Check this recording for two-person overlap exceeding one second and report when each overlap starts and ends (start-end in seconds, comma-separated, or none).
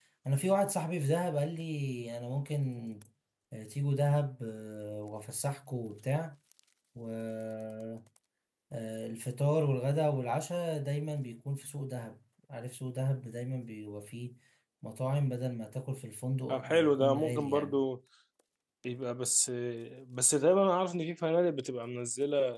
16.5-17.8